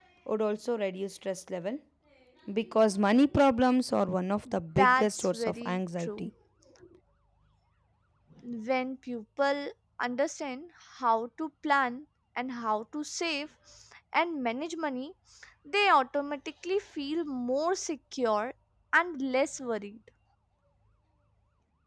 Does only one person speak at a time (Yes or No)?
No